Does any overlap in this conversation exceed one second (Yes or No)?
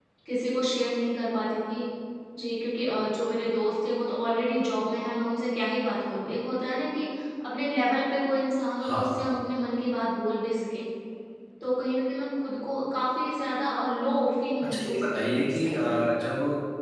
Yes